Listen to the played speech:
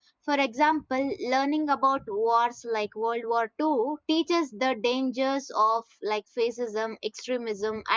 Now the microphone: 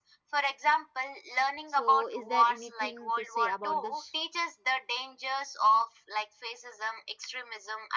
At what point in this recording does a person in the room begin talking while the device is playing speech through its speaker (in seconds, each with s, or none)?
1.6 s